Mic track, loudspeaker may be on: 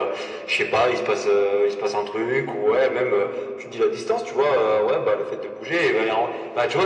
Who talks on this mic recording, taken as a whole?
echo only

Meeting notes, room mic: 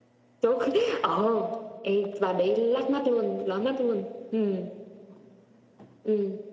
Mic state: echo only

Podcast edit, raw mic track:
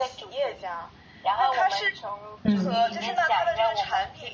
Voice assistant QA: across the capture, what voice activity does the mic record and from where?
both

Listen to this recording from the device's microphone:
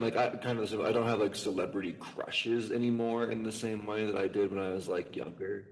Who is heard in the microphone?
echo only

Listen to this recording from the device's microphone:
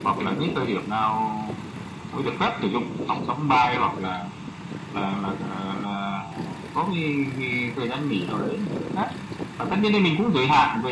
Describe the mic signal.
echo only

